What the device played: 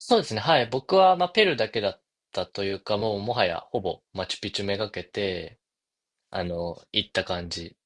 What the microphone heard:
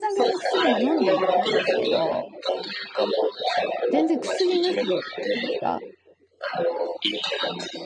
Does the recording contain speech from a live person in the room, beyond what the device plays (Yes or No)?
Yes